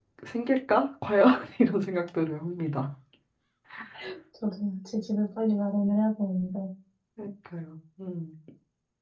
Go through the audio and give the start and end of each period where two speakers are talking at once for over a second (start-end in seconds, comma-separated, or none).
none